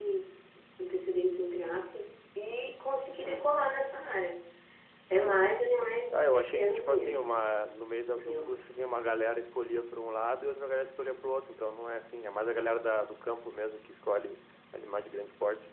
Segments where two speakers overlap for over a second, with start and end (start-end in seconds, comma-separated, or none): 6.1-7.4